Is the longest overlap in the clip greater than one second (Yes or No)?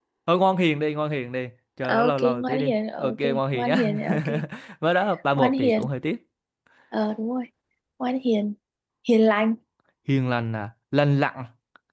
Yes